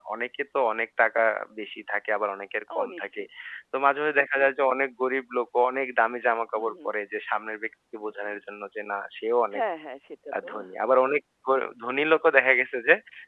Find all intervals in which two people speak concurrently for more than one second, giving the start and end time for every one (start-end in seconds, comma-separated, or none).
none